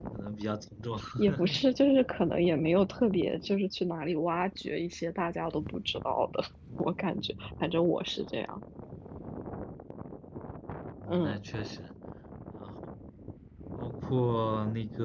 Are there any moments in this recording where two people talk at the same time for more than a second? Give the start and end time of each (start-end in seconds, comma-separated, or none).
none